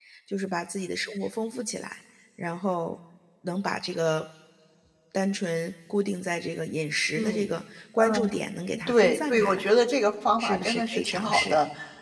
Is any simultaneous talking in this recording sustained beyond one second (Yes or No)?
Yes